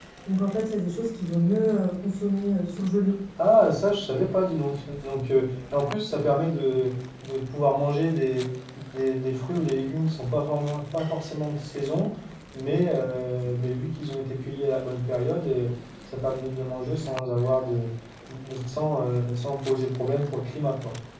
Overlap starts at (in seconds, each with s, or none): none